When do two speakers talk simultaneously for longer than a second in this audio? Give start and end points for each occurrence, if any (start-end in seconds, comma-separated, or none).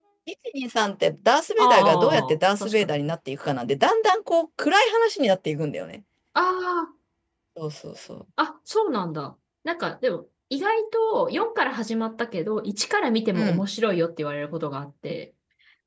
1.6-3.0